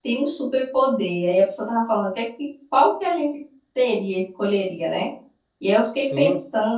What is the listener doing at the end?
listening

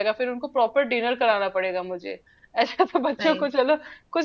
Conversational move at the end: listening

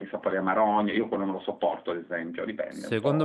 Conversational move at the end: taking over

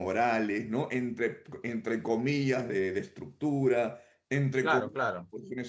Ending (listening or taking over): listening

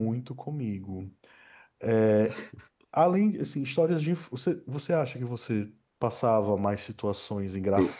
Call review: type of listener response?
listening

